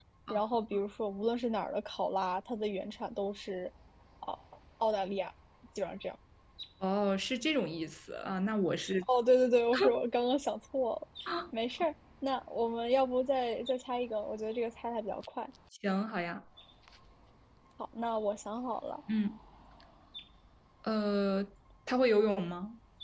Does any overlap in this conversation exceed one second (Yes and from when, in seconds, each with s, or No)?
No